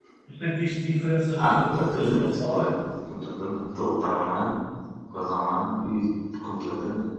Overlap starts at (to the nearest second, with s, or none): 1 s